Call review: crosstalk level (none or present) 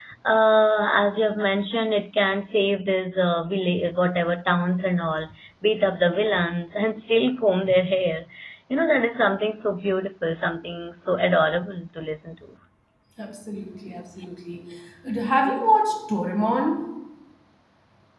none